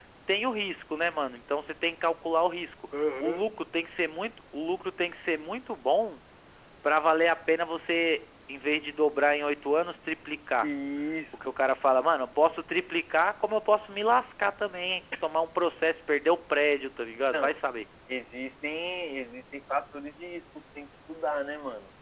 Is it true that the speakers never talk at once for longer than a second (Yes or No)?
Yes